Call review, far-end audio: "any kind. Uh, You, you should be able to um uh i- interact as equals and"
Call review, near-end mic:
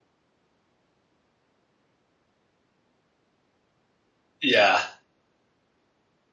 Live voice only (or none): Yeah.